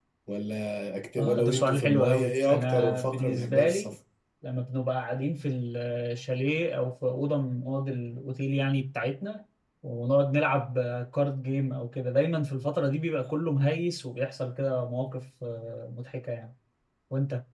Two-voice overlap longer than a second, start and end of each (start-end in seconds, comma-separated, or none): 1.2-4.0